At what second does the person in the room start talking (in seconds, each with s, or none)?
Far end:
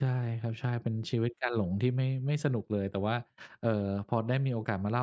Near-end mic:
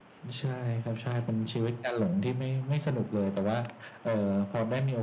none